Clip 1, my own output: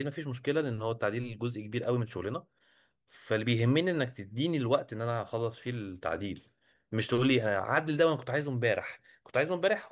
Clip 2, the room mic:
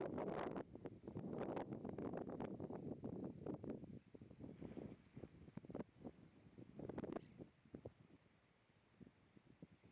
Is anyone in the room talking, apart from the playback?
No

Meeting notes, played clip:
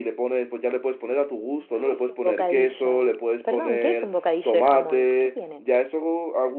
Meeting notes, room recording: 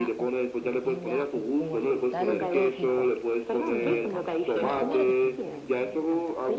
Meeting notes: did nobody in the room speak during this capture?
No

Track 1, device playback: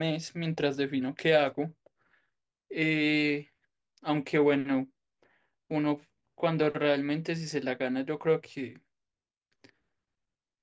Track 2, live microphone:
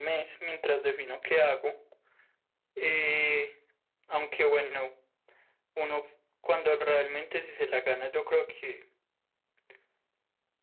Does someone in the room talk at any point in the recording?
No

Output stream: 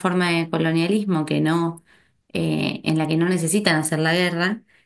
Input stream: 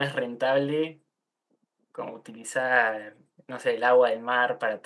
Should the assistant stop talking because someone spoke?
Yes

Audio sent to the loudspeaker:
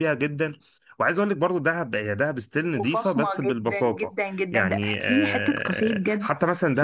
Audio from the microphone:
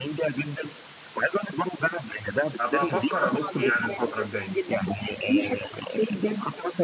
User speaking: Yes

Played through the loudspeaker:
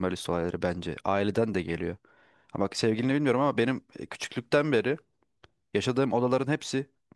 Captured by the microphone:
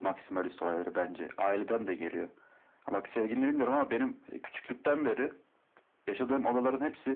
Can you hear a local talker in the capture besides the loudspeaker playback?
No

